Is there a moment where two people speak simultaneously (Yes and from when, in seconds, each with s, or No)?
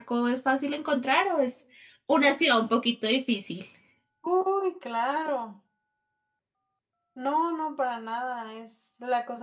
No